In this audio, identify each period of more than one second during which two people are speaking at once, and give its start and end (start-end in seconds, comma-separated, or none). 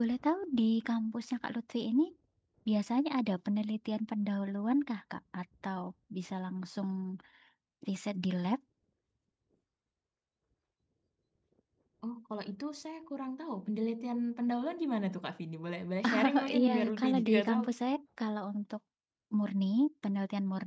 16.2-17.6